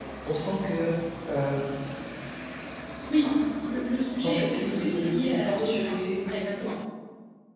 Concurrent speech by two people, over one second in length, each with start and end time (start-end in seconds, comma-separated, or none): 4.2-6.0